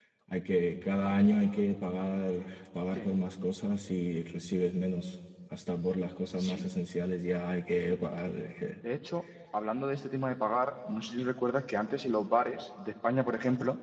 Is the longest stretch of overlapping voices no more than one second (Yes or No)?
Yes